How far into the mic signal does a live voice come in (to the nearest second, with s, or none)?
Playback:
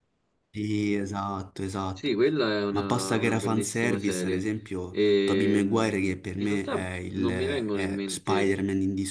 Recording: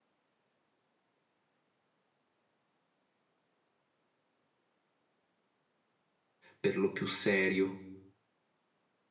7 s